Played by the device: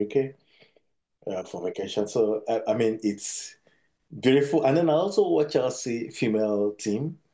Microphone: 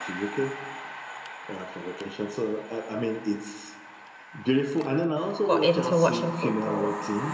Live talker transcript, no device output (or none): got into watching football